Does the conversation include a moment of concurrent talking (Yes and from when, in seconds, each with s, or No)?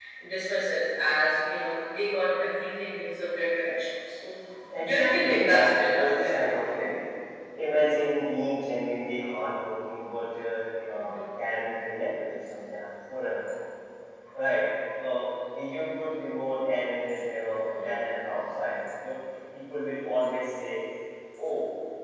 Yes, from 4.8 s